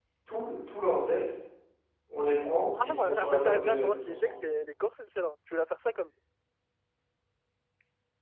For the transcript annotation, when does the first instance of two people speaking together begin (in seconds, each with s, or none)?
2.8 s